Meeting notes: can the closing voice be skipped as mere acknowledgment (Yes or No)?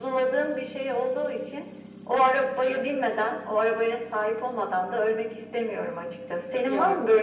Yes